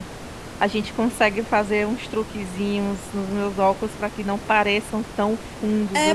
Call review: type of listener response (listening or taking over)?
taking over